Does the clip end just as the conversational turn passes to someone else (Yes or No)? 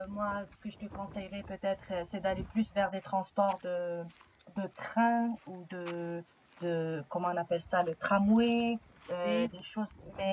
No